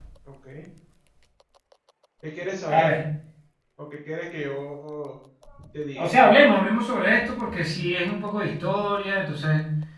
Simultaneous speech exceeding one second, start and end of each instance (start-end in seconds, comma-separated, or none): none